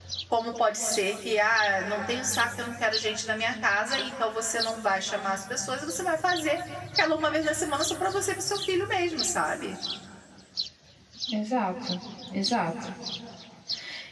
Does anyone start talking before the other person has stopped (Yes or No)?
No